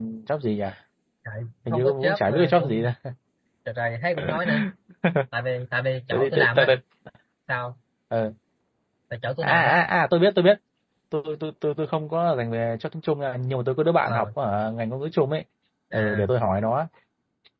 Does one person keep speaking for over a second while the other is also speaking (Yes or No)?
Yes